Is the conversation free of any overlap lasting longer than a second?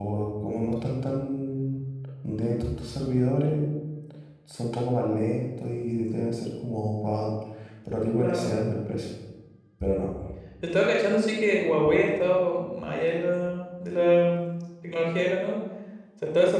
Yes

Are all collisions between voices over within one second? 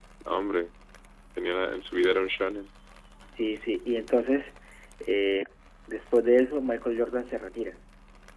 Yes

